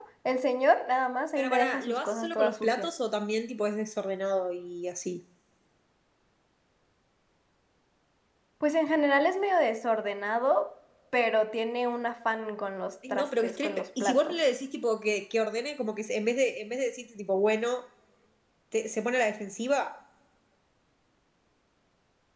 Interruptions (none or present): present